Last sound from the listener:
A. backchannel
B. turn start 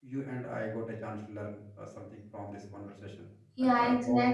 B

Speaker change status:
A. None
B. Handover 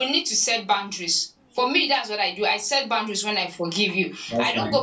A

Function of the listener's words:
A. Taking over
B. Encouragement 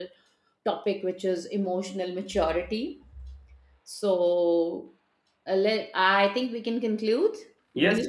A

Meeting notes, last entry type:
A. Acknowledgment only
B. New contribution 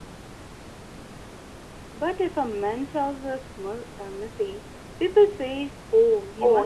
B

